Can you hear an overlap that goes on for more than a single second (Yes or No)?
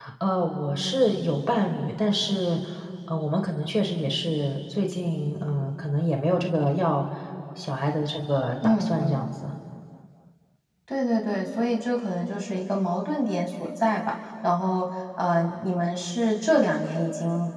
No